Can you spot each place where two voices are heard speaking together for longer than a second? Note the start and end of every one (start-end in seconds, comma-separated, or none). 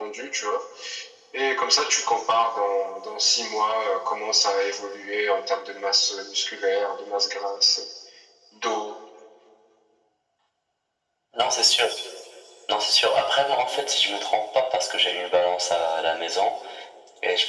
none